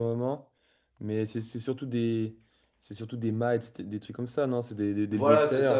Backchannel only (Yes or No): No